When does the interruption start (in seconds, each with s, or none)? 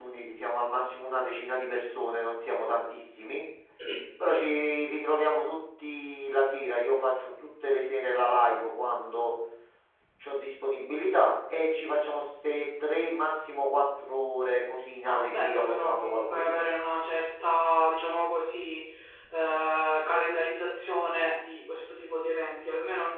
15.1 s